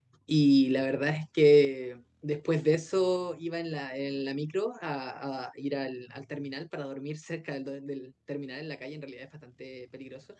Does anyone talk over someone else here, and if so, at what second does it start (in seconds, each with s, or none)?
none